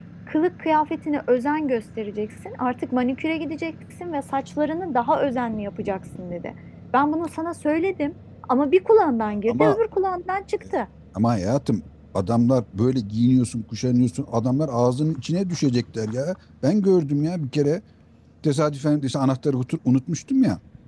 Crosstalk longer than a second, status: none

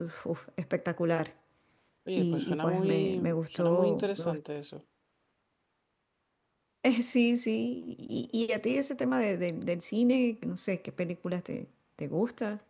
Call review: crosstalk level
present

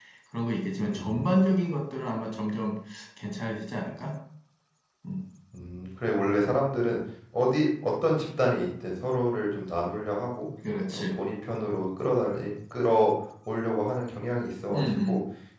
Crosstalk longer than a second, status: none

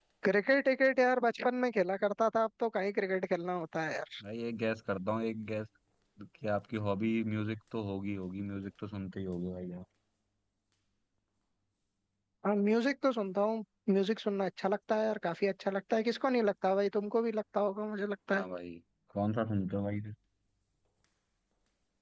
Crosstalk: none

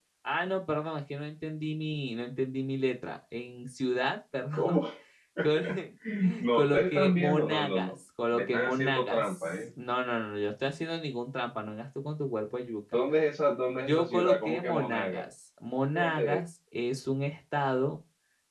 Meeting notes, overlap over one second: present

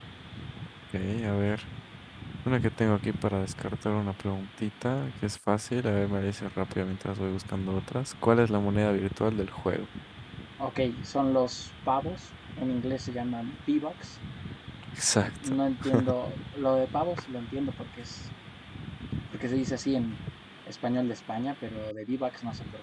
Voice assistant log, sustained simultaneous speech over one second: none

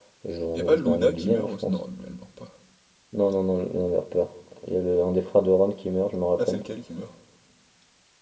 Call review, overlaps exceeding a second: present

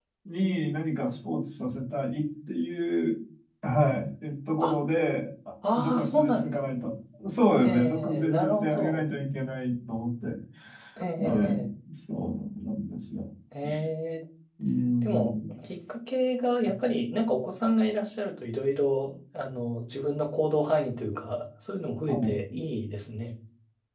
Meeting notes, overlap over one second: present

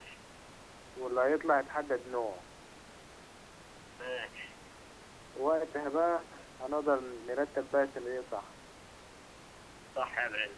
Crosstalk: none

